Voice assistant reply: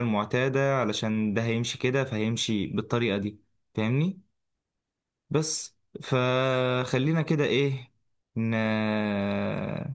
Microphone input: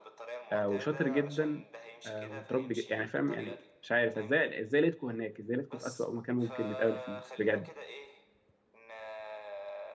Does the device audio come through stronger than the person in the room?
No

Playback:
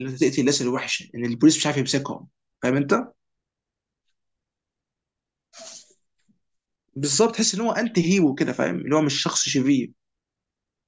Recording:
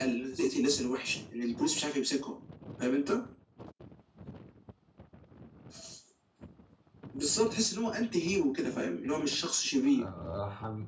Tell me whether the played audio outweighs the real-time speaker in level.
Yes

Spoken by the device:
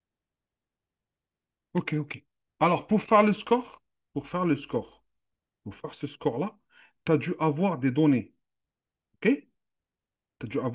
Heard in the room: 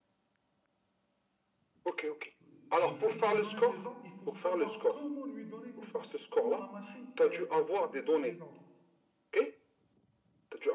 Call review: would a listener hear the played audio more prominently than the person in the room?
Yes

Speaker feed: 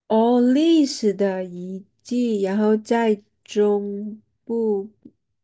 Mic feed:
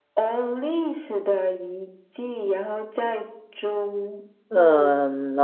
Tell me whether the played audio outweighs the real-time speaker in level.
No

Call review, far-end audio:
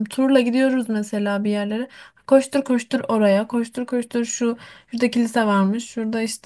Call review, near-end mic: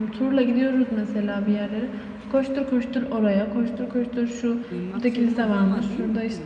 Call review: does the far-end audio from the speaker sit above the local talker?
Yes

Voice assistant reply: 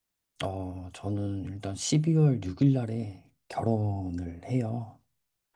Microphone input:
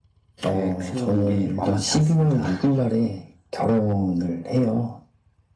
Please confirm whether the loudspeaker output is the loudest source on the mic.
Yes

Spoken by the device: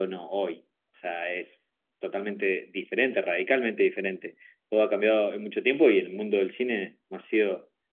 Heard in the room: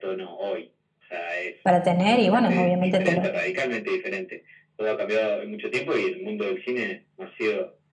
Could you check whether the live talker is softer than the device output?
No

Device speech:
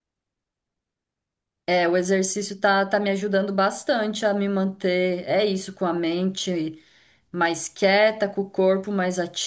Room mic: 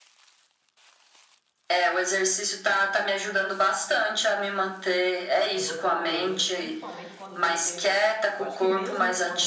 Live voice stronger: No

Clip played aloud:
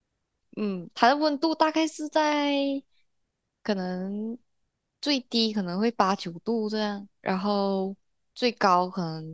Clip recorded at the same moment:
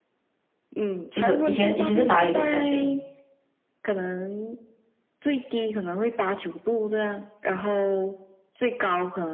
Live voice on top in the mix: Yes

